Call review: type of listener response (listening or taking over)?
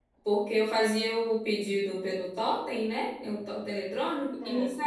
listening